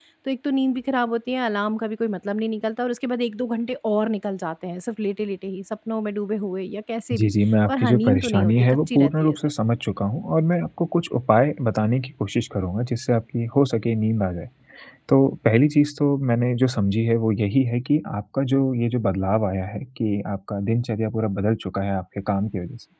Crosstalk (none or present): present